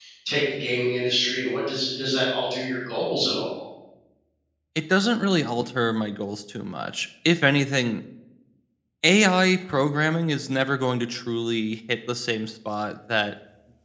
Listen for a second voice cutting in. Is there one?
No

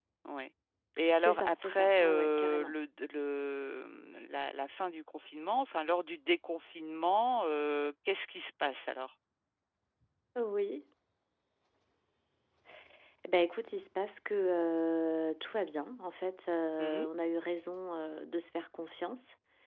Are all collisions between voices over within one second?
No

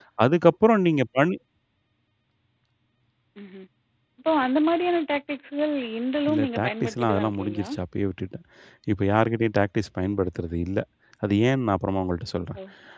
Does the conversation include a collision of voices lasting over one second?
Yes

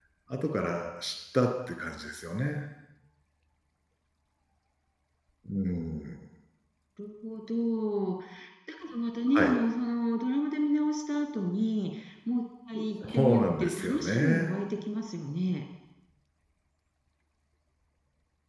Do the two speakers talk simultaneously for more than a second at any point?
Yes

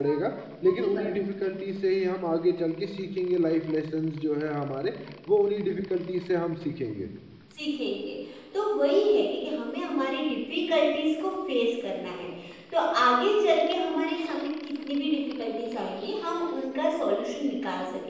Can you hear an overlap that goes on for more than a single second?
No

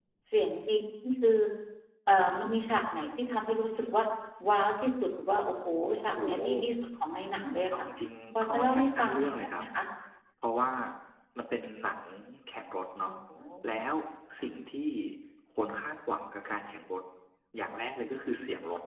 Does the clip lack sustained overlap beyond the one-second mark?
No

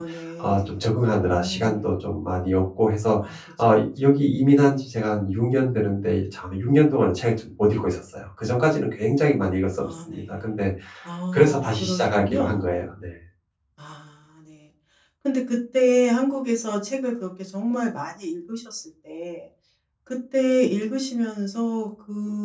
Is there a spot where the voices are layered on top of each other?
Yes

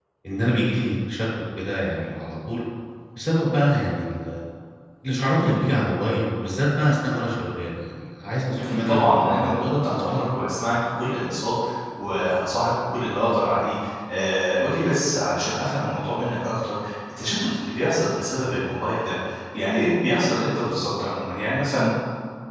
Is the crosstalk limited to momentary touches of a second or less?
No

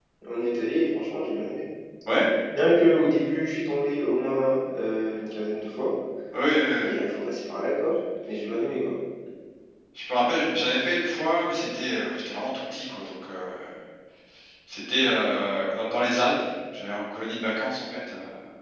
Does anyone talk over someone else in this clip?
No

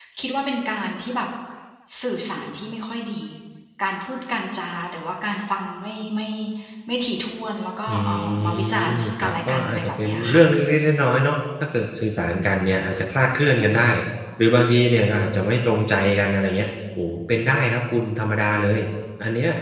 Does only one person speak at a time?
No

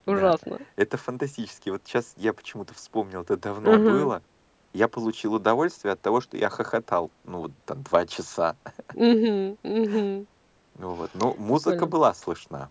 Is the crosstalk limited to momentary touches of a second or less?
Yes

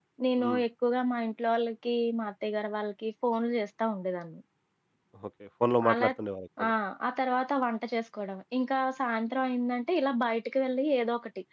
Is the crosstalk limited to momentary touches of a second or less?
Yes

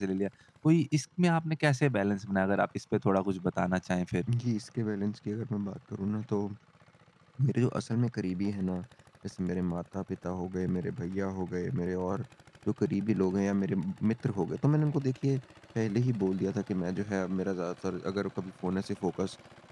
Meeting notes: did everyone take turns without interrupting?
Yes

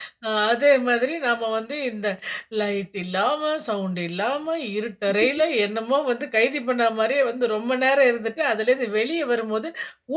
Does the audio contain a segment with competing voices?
No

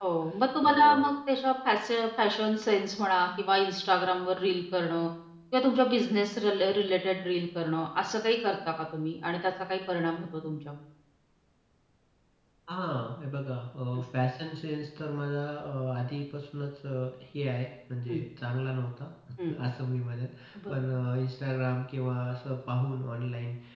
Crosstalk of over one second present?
No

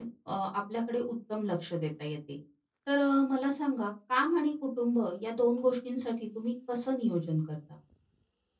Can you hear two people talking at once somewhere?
No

